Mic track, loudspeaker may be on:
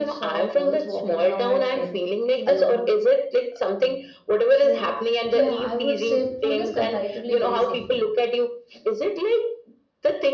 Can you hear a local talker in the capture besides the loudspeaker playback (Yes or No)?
Yes